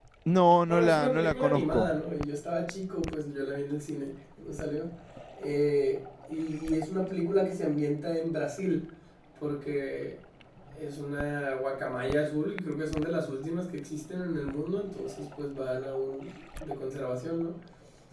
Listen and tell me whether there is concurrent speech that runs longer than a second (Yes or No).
Yes